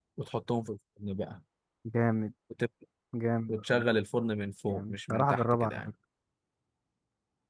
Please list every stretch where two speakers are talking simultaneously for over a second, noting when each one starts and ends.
4.7-5.9

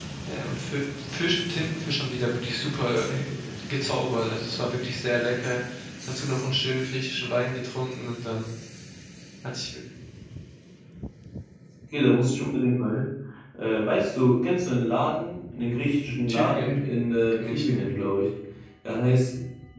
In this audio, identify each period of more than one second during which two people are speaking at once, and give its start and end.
none

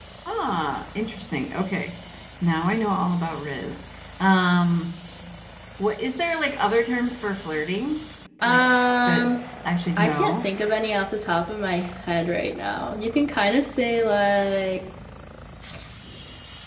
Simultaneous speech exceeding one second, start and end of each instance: none

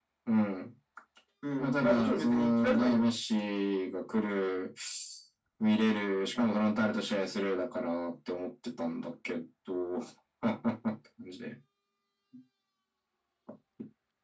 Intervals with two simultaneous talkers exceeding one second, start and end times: 1.6-3.0

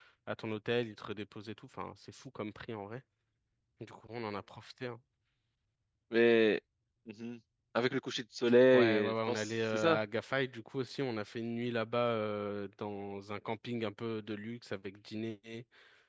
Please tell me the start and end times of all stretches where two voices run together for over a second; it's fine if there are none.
8.7-10.0

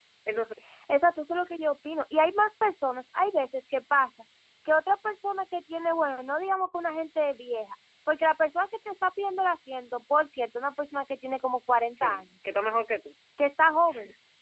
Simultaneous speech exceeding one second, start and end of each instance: none

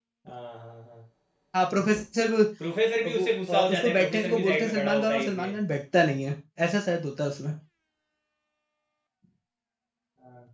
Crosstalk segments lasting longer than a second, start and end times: 3.1-5.5

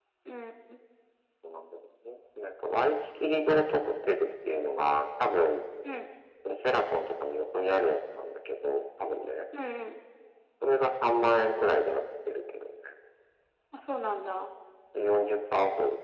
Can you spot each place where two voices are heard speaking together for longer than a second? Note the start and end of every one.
none

